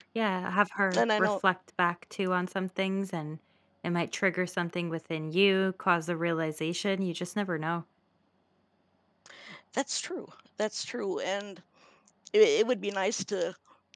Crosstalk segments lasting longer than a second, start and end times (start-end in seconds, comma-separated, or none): none